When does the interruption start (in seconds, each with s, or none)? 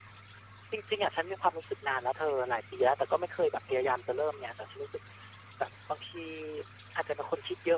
none